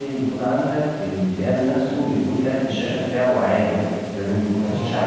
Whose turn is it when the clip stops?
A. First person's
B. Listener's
B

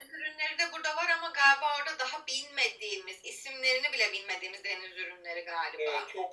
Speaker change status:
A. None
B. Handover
B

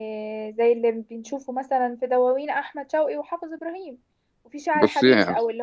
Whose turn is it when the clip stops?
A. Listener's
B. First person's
B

